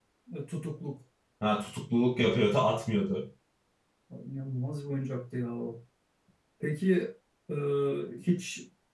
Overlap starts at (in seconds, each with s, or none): none